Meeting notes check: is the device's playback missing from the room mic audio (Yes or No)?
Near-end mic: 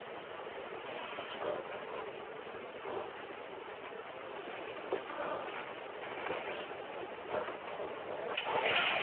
Yes